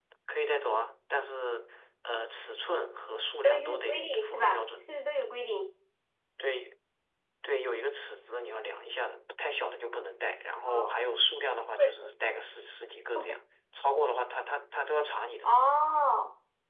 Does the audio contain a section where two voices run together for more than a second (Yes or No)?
Yes